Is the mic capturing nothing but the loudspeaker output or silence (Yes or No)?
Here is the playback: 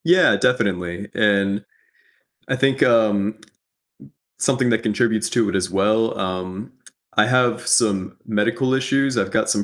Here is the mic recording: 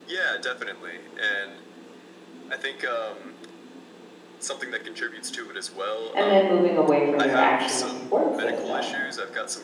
No